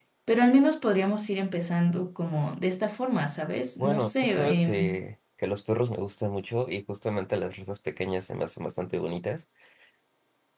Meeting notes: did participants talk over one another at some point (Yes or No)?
Yes